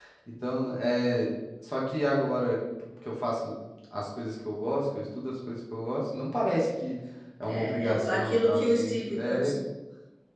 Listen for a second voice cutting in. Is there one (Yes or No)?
Yes